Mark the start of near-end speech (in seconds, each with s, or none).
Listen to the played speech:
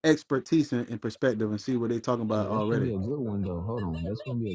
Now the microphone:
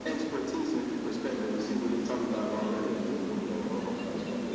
none